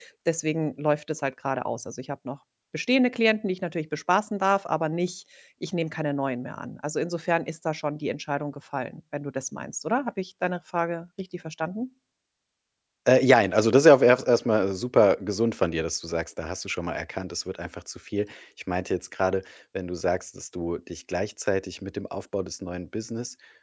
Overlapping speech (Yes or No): No